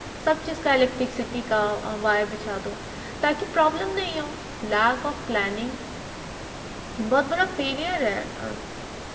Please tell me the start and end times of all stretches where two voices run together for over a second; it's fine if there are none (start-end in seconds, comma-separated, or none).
none